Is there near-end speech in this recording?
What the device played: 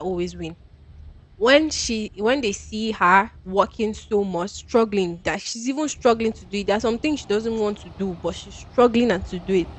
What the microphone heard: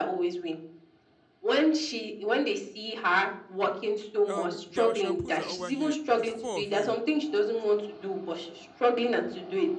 Yes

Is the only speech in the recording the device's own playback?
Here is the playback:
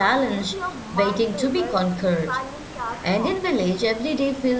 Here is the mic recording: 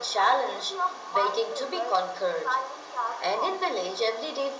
Yes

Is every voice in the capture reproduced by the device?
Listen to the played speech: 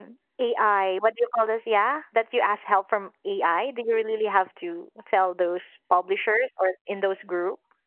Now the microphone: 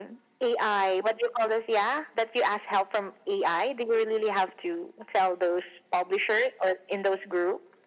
Yes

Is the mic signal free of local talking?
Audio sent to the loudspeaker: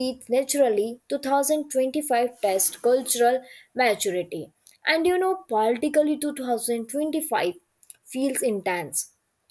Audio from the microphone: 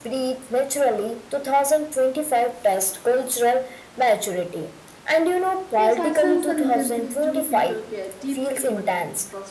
No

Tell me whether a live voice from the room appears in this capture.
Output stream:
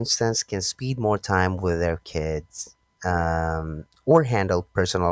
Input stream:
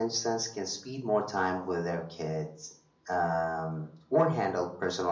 No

